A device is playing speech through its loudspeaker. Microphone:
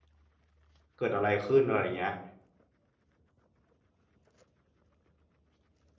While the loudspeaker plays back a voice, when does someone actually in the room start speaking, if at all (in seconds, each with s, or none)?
1.0 s